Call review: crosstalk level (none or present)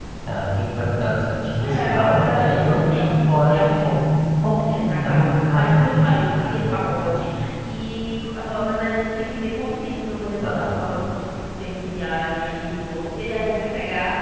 present